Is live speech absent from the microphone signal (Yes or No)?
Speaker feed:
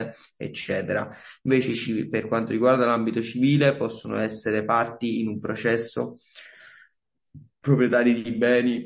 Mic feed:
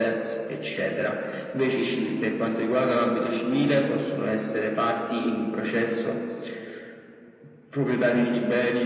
Yes